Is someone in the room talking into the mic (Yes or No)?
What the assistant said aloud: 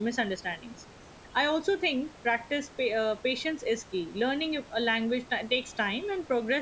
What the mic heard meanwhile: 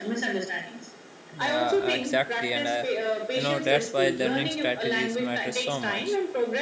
Yes